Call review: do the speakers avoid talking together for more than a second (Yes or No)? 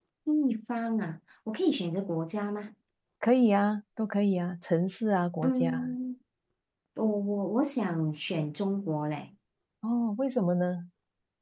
Yes